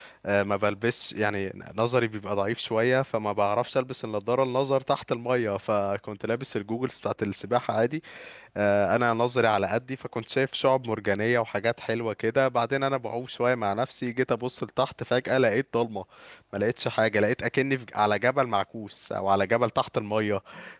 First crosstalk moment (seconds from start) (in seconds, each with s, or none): none